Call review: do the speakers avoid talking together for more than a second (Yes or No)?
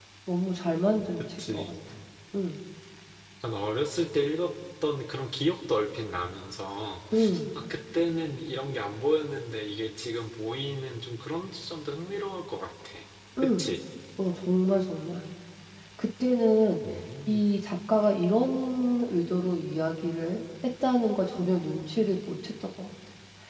Yes